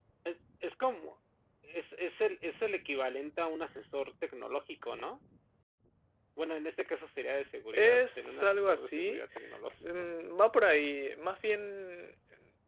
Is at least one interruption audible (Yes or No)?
Yes